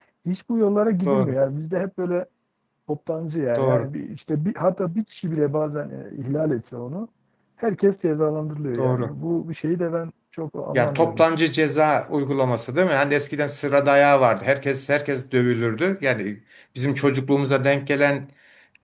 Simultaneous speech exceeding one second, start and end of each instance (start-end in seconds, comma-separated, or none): none